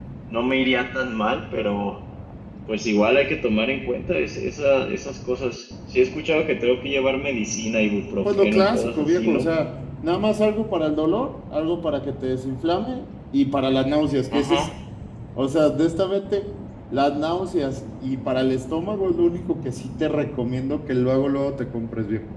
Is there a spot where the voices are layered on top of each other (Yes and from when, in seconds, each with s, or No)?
Yes, from 8.2 s